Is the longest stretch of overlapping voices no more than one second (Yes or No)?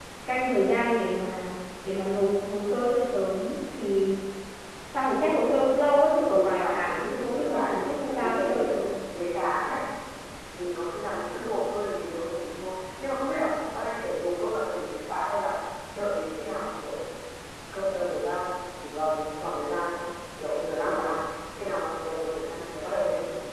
No